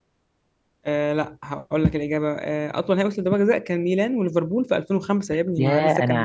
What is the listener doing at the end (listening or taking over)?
taking over